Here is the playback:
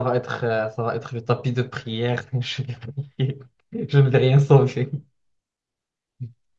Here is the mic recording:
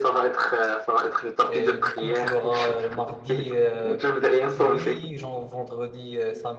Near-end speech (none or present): present